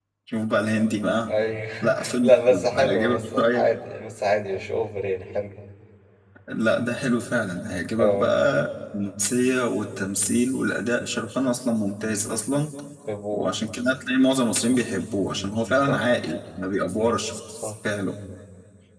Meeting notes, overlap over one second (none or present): present